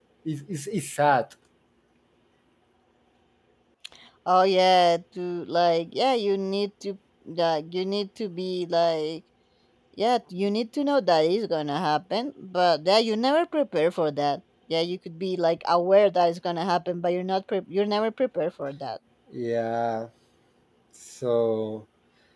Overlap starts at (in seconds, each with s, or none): none